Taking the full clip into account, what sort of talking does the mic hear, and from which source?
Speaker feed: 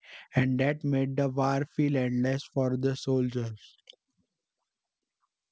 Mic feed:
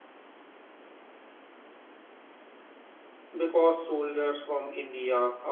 user only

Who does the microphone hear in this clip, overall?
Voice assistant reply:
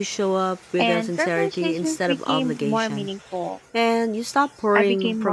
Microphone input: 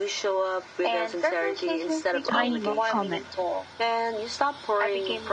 both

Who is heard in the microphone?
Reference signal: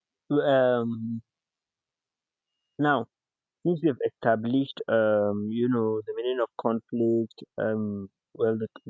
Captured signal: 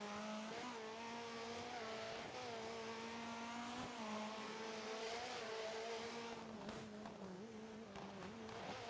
neither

